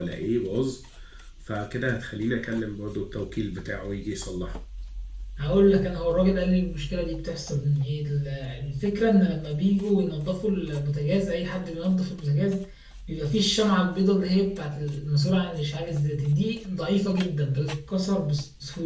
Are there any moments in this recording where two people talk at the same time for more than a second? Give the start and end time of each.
none

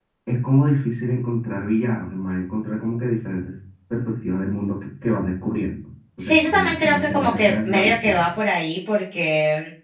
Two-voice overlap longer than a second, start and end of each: 6.2-8.2

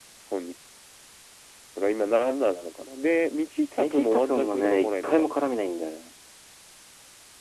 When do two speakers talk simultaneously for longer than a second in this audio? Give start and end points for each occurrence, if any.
3.8-5.3

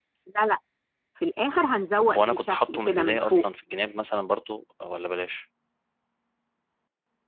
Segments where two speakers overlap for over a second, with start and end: 2.0-3.4

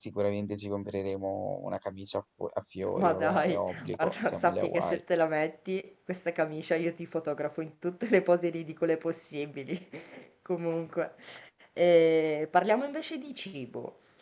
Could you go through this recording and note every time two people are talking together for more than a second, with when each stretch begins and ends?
3.0-5.0

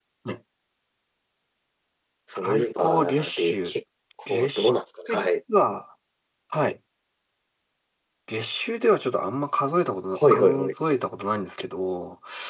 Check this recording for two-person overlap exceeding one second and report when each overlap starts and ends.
2.4-3.7

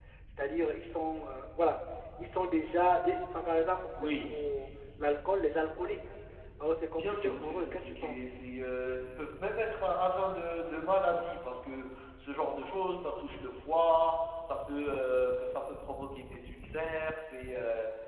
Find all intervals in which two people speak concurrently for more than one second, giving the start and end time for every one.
6.9-8.4

